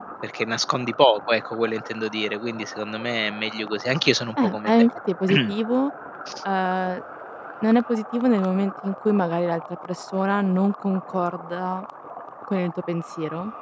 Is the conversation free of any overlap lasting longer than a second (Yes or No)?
Yes